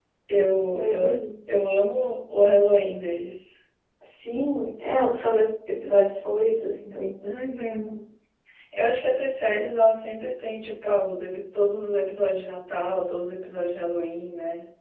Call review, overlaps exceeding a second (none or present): none